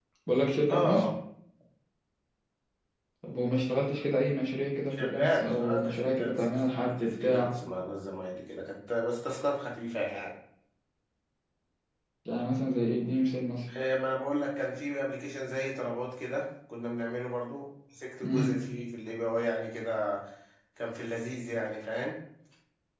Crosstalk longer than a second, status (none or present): present